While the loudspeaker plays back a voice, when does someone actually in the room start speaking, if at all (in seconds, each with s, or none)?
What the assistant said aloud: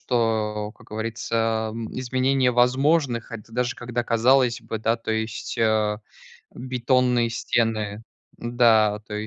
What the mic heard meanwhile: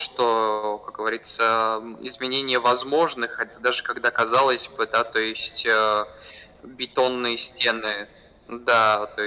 none